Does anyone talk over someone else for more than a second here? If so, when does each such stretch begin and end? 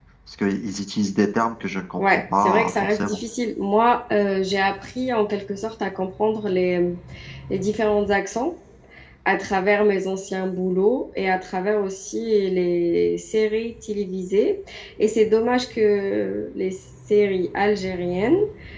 2.0-3.2

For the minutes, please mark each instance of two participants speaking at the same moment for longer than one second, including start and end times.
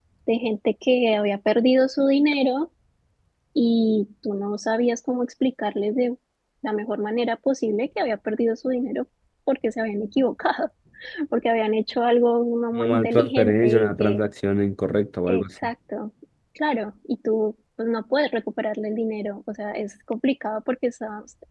12.8-14.2

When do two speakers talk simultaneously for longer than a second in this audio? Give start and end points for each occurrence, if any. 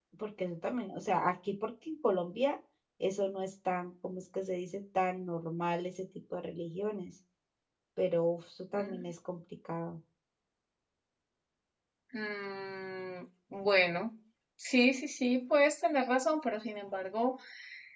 none

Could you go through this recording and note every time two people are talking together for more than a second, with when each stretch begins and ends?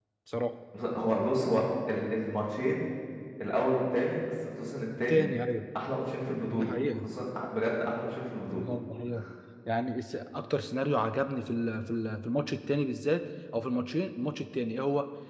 none

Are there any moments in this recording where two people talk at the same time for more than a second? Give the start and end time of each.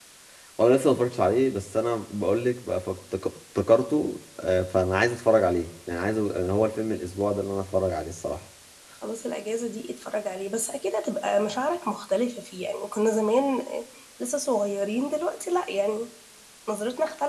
none

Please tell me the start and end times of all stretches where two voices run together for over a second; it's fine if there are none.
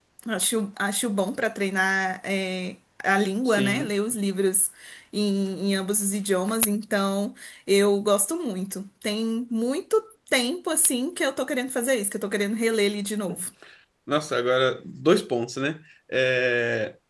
none

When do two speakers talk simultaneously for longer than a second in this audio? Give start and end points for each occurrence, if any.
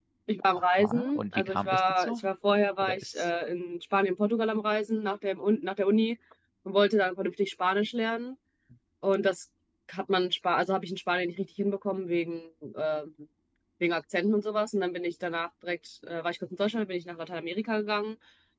0.8-2.2

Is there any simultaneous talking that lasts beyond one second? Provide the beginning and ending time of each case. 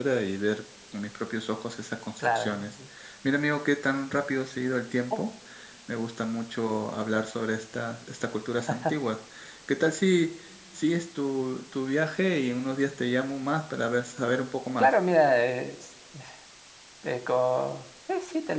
none

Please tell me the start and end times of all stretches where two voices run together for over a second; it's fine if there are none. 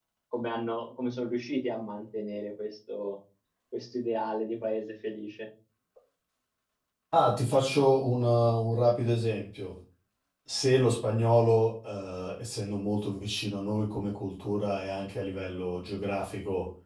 none

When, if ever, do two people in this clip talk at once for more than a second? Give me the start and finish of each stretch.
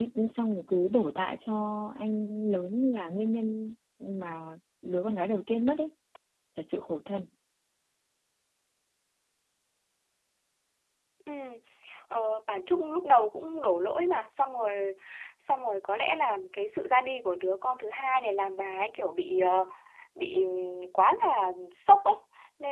none

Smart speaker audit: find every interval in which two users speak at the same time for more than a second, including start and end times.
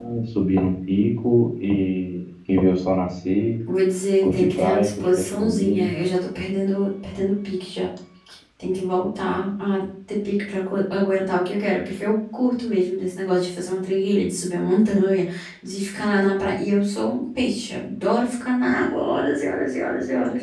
4.2-5.9

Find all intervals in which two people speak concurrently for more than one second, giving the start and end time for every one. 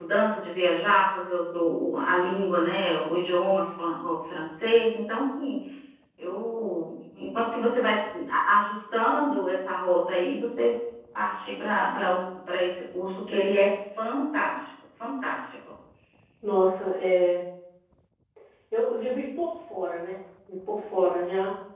none

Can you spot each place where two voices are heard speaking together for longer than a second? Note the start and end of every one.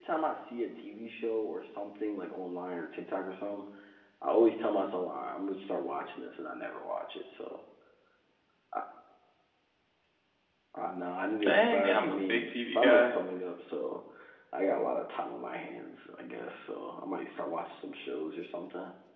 11.4-13.1

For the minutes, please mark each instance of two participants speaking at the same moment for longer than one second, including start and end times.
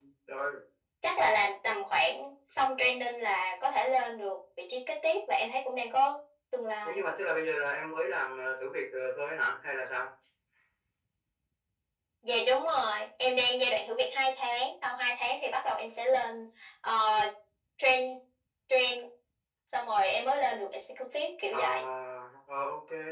none

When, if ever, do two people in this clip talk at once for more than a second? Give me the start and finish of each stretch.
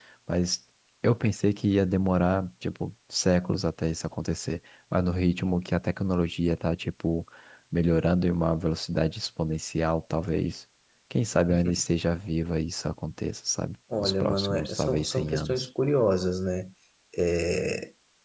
14.0-15.7

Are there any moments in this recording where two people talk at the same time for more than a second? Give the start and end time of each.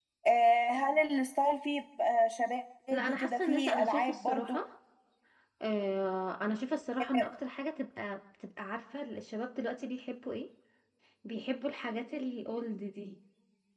2.9-4.6

